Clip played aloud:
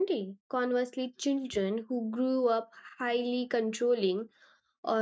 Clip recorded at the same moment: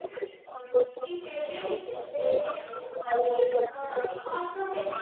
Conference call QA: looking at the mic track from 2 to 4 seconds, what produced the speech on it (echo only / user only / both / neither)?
both